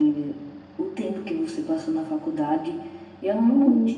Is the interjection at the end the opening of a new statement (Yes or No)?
No